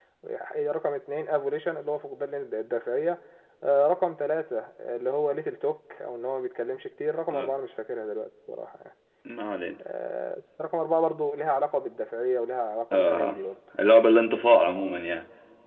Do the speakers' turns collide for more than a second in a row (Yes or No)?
No